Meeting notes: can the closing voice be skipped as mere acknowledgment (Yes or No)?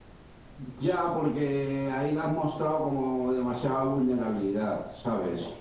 Yes